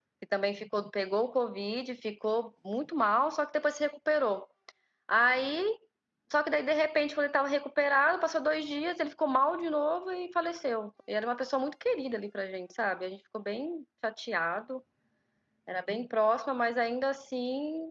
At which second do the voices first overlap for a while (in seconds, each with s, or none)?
none